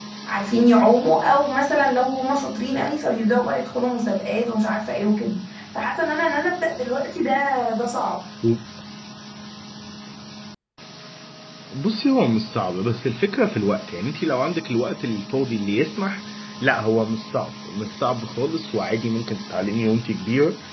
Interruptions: none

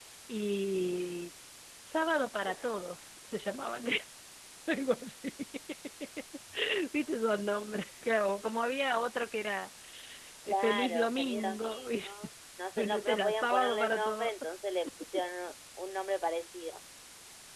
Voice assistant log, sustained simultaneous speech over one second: present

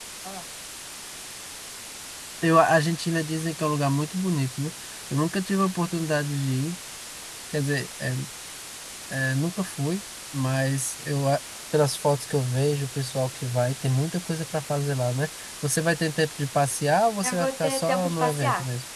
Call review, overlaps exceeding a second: present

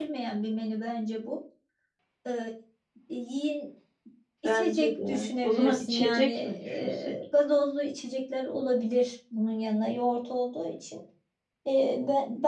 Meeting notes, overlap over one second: present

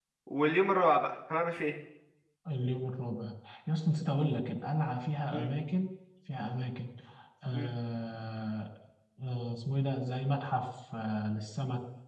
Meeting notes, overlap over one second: none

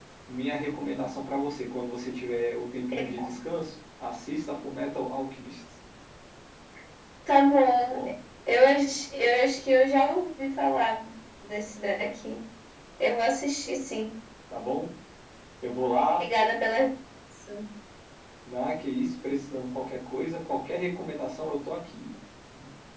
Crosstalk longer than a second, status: none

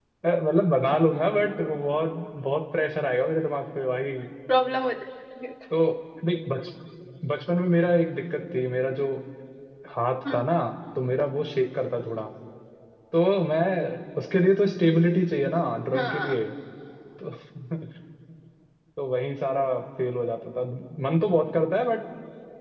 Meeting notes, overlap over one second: none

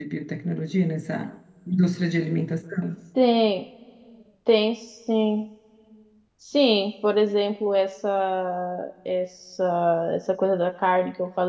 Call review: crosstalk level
none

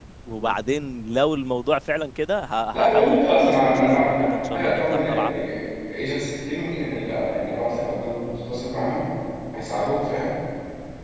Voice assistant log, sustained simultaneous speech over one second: present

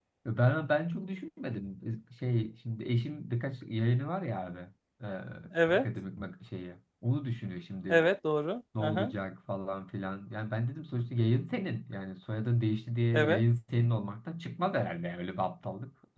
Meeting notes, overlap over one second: none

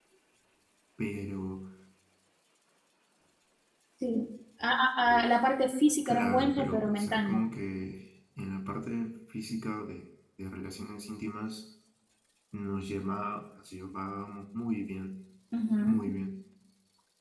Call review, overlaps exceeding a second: present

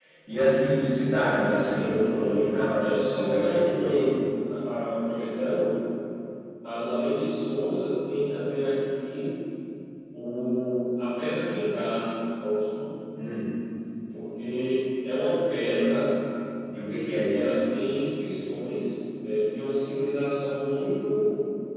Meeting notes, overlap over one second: present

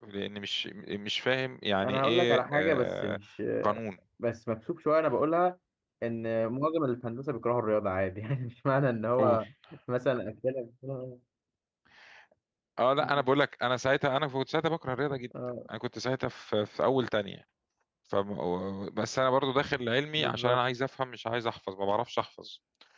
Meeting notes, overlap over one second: present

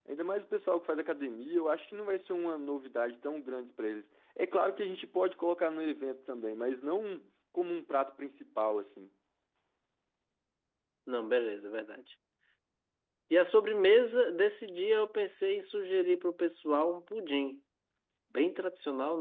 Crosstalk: none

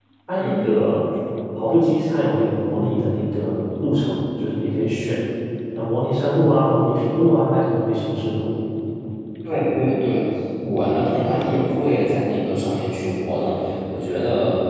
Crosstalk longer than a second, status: none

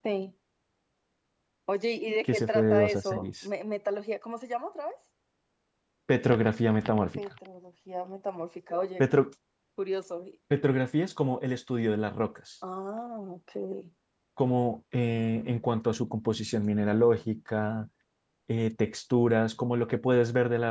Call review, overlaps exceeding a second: present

